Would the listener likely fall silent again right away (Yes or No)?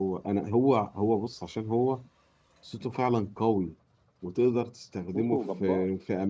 Yes